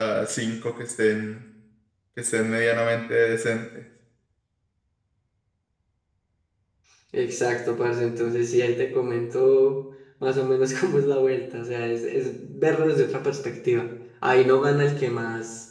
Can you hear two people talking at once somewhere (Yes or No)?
No